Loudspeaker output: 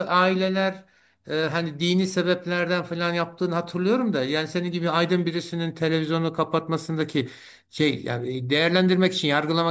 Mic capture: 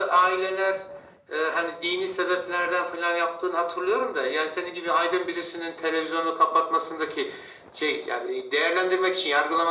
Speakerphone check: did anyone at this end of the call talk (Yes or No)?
No